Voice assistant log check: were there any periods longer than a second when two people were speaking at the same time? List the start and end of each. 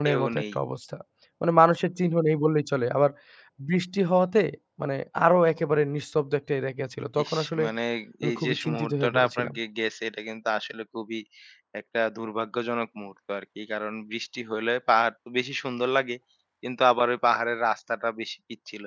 8.3-9.5

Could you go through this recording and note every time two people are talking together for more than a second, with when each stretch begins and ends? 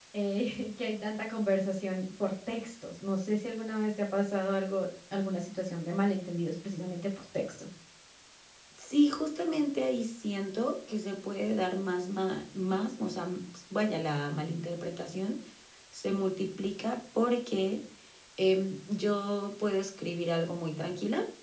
none

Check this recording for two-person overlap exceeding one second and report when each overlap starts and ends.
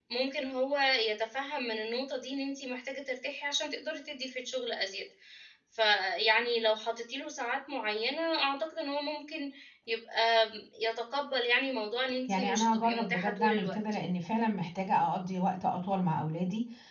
12.3-13.8

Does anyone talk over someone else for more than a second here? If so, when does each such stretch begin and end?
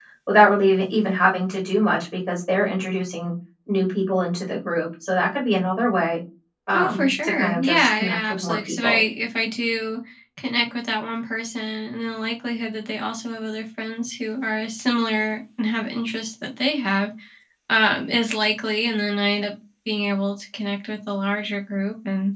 6.7-9.0

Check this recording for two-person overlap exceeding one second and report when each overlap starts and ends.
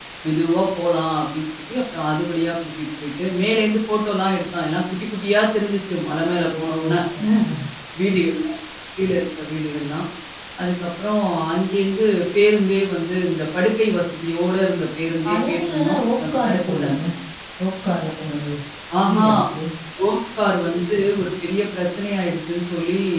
15.2-17.0

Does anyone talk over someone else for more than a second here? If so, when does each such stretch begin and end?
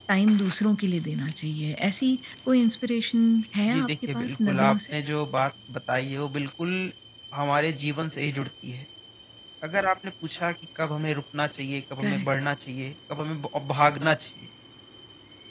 3.7-4.9

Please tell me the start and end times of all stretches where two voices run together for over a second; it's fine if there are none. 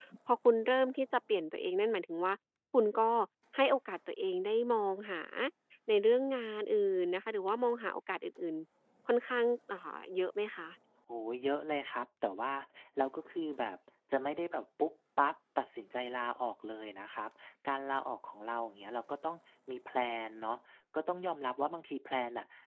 none

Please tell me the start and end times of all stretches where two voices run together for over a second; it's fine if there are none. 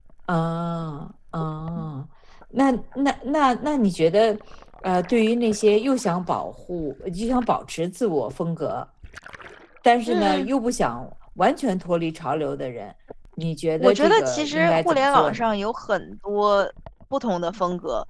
13.8-15.4

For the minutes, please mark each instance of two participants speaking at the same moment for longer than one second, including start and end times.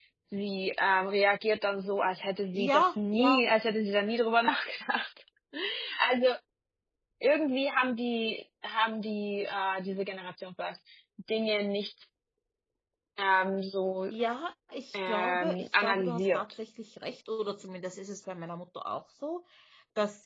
14.9-16.4

